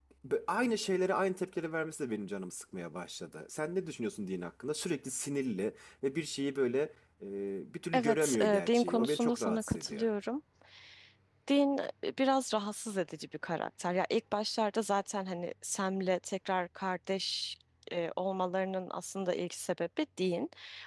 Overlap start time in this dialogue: 7.9 s

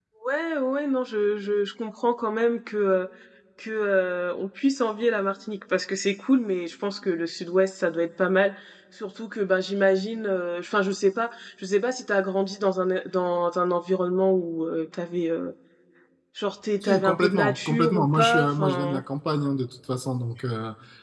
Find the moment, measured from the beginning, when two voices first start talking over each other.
16.8 s

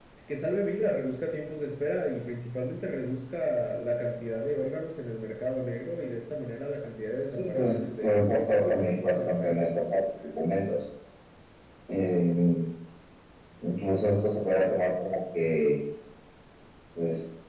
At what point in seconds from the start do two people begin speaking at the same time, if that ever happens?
7.3 s

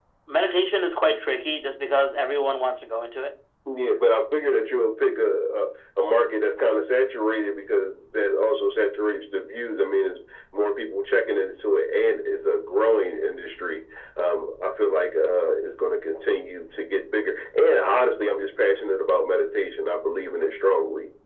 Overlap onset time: none

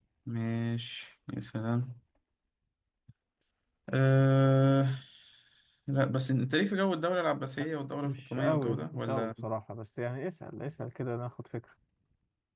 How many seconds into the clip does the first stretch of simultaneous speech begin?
8.0 s

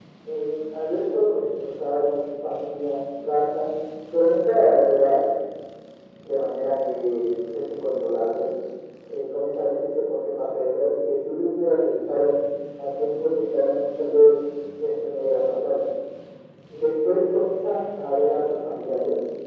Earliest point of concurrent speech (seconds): none

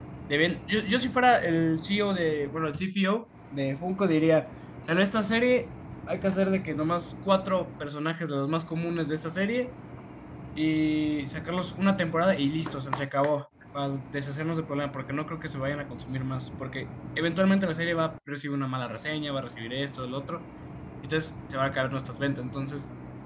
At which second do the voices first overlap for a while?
none

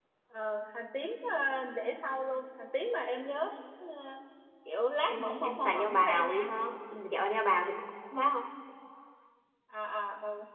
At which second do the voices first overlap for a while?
5.1 s

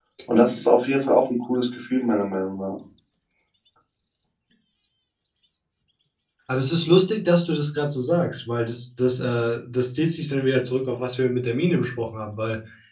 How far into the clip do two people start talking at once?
none

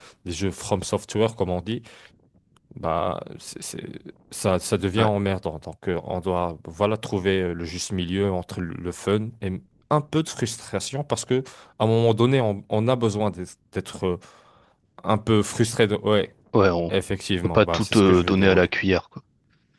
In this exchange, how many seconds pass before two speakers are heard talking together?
17.4 s

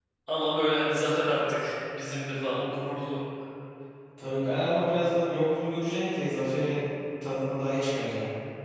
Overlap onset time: none

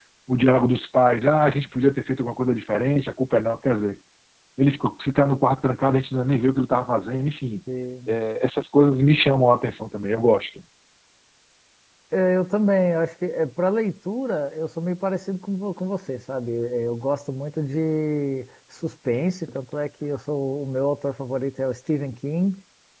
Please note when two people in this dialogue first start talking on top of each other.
none

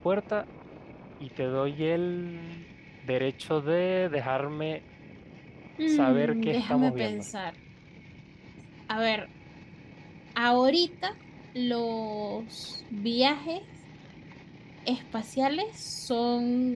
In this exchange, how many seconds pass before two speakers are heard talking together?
5.9 s

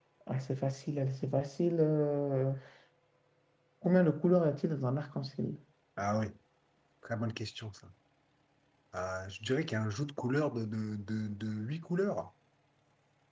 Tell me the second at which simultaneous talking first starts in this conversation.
none

